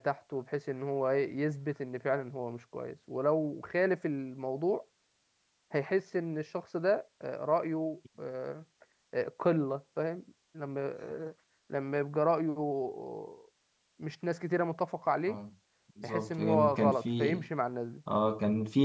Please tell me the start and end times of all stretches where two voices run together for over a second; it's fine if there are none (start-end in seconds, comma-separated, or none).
16.0-17.4